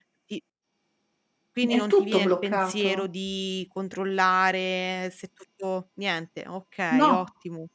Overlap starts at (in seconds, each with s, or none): 1.7 s